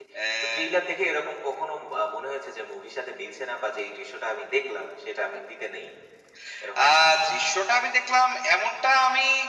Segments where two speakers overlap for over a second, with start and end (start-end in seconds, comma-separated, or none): none